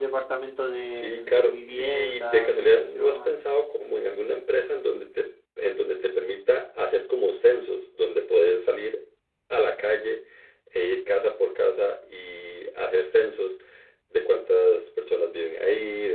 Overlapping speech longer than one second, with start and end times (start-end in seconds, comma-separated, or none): 0.8-3.4